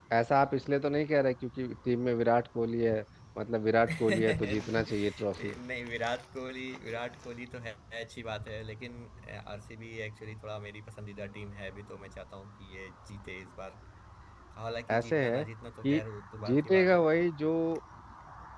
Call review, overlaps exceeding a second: present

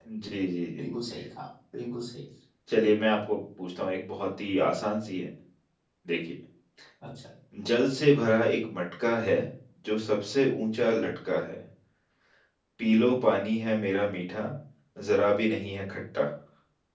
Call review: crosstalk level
none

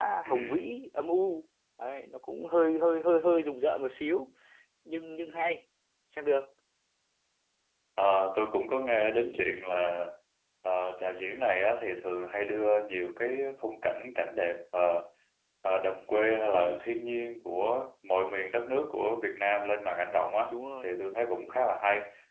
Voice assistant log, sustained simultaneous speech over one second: none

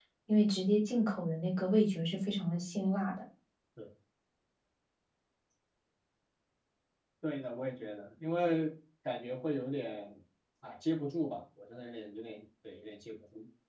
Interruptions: none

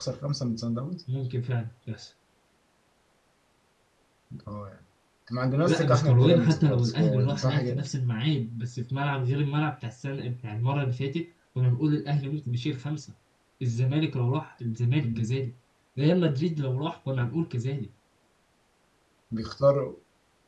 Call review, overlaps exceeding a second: present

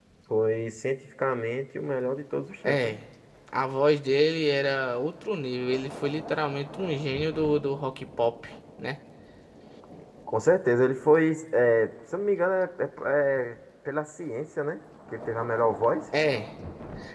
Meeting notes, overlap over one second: none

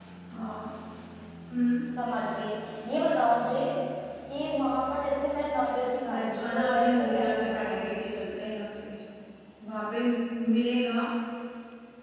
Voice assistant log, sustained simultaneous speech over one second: present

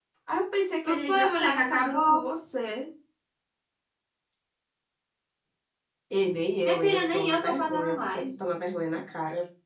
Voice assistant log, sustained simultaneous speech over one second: present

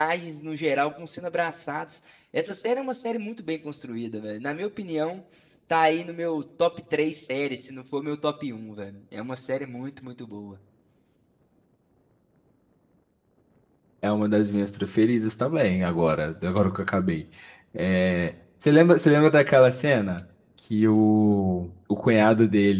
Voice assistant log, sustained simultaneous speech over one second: none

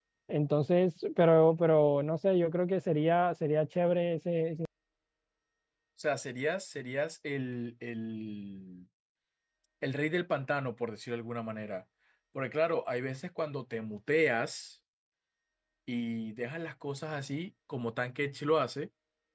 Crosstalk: none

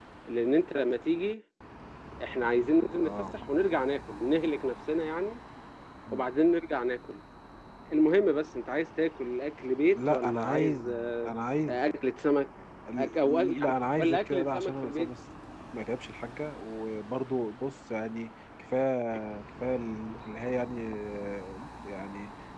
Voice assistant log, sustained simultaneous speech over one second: present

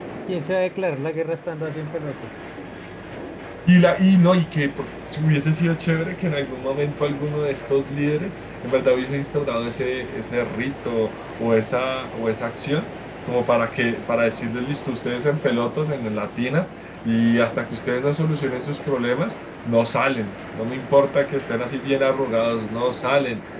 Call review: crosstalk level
none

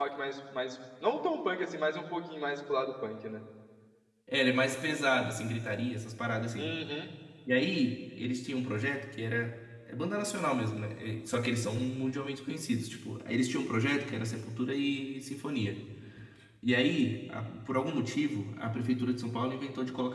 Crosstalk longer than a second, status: none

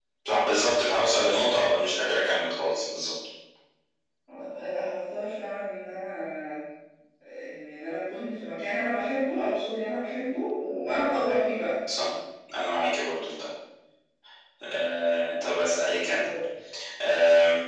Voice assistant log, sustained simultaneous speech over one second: none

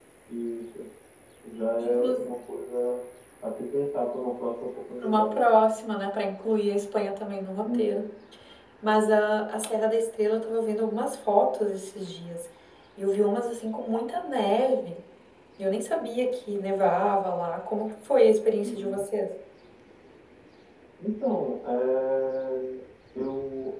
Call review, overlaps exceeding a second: none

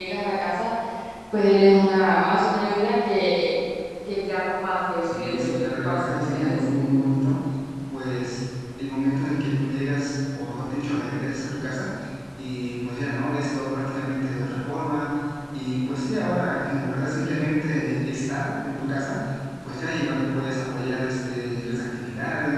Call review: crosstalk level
present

